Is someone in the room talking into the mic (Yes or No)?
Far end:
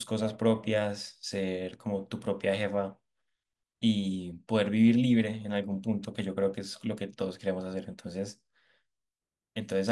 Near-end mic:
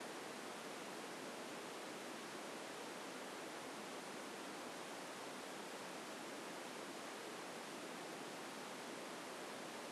No